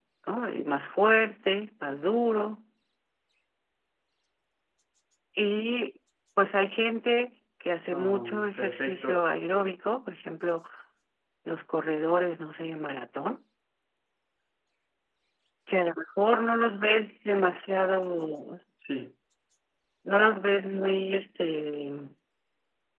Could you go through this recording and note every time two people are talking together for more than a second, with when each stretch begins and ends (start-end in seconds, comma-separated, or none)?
7.9-9.3